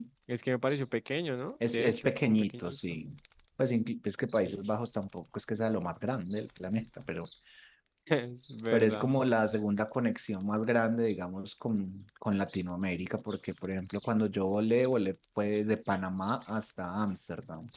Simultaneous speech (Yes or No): Yes